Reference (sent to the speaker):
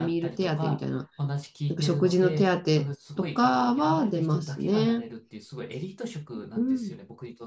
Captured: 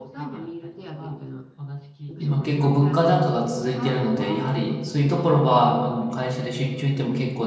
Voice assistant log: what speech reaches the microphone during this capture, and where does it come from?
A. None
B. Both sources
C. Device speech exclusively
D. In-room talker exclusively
B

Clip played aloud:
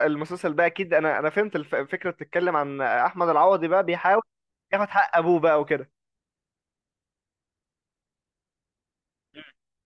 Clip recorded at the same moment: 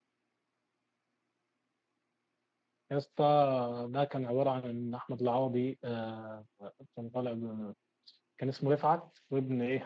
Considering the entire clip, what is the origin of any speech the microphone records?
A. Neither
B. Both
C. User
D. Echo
C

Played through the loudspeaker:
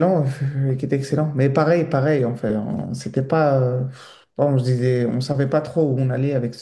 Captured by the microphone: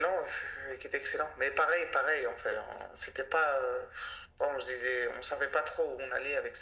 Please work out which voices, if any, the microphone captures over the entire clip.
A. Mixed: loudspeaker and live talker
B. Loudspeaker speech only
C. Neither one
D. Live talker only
B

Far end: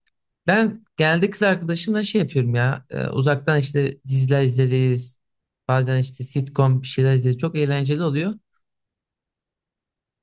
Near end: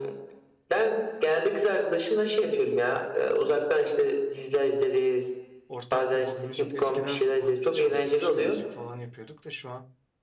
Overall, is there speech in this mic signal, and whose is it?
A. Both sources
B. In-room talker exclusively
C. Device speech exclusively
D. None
A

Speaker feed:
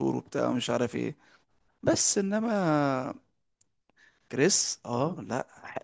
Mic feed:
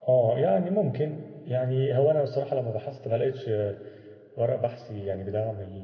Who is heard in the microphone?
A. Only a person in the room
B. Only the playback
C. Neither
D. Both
A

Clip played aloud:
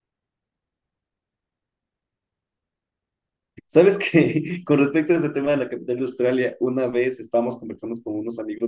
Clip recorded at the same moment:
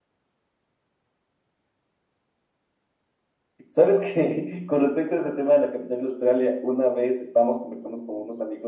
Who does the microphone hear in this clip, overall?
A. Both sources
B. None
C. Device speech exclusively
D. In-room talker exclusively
C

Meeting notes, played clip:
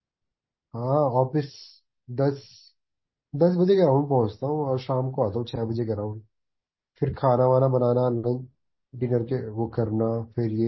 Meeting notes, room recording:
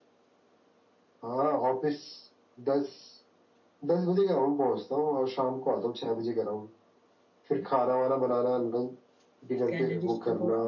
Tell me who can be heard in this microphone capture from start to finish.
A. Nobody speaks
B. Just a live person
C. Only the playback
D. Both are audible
D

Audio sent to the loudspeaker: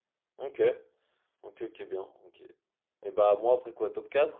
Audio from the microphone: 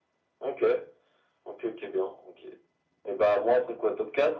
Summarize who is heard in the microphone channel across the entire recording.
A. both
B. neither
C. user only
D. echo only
D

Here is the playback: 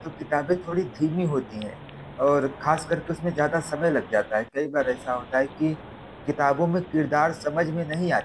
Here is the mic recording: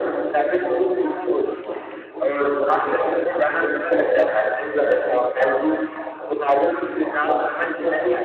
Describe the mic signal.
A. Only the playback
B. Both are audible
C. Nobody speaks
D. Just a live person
A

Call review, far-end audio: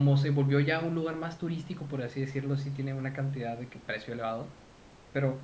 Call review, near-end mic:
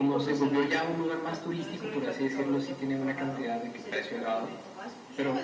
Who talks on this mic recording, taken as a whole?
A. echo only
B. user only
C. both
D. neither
C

